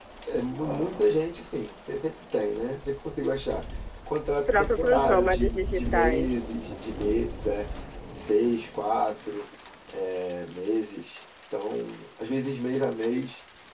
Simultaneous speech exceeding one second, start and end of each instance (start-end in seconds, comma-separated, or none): 4.5-6.3